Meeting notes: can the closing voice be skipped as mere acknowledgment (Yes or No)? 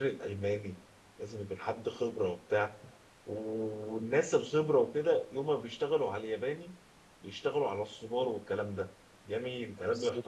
Yes